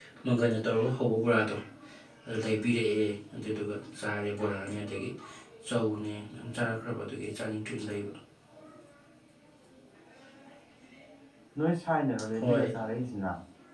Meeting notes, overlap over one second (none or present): none